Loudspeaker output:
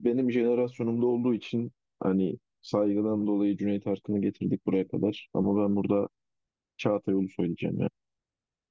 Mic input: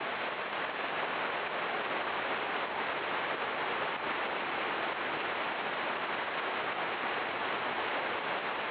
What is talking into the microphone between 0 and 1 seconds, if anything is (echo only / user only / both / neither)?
neither